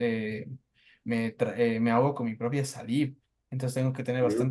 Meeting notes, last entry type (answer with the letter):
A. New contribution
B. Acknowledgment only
B